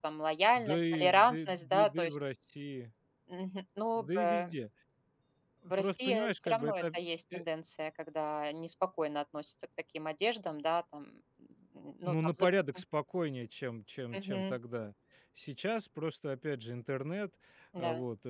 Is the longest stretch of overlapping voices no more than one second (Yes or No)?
No